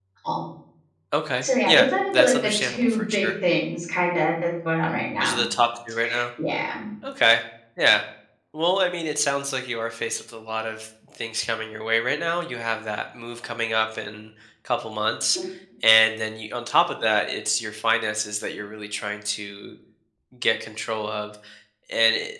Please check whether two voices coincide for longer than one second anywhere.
Yes, from 1.4 s

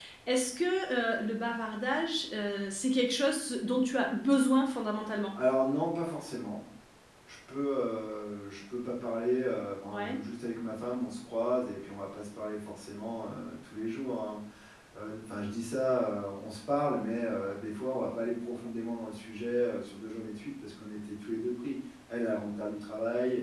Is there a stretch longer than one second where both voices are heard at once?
No

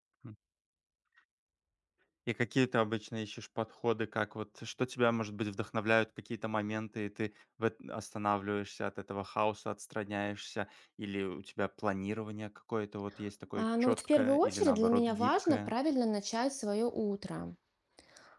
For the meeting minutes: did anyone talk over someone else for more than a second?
Yes, from 13.6 s

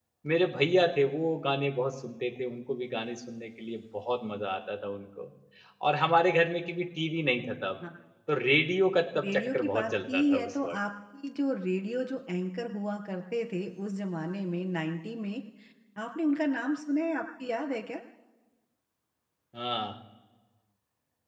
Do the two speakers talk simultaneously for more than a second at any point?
Yes, from 9.1 s

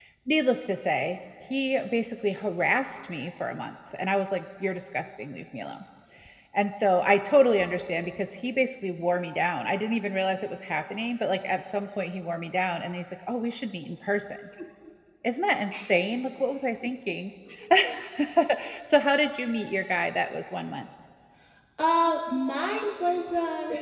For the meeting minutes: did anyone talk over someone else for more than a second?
No

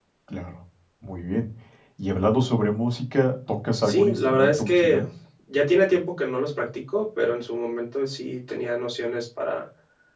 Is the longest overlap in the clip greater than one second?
Yes, from 3.8 s

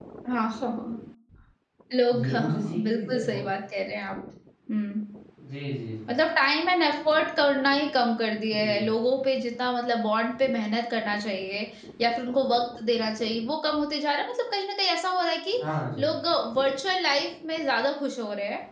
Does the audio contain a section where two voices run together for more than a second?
Yes, from 2.1 s

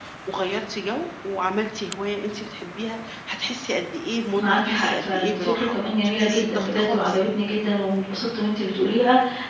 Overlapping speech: Yes, from 4.4 s

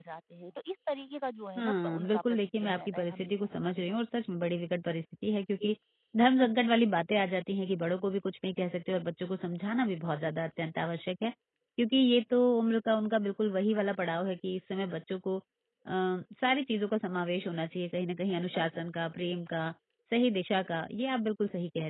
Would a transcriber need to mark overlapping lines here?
Yes, from 1.6 s

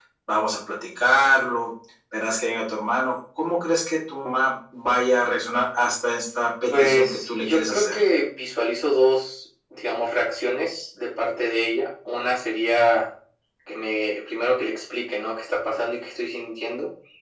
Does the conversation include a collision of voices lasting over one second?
Yes, from 6.7 s

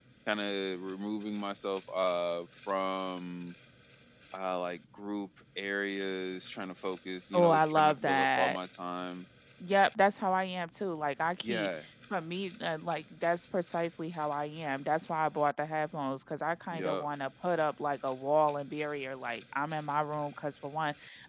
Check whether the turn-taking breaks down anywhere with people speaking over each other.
Yes, from 7.3 s

